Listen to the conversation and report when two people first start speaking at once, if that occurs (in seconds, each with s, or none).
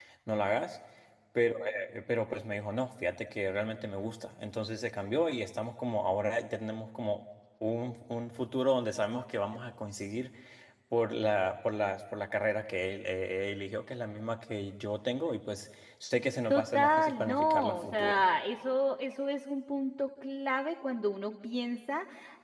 16.5 s